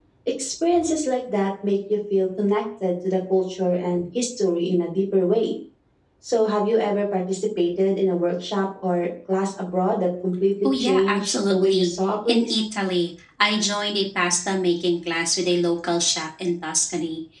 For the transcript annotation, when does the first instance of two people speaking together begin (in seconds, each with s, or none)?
10.6 s